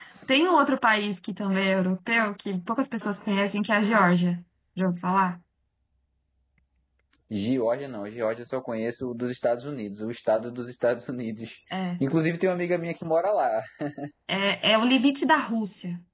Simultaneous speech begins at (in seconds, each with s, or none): none